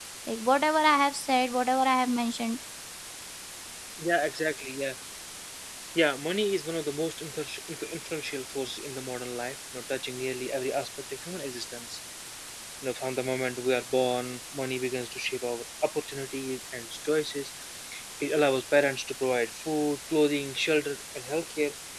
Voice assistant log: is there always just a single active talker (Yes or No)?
Yes